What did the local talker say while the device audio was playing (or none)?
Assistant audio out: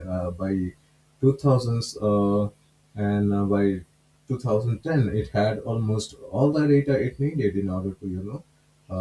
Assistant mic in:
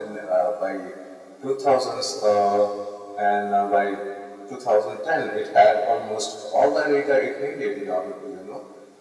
none